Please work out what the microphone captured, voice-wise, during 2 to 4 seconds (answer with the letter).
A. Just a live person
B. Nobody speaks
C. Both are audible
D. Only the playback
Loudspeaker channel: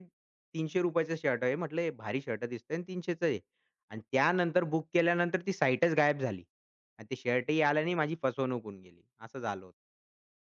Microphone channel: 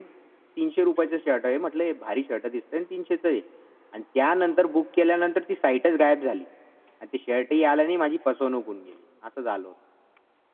D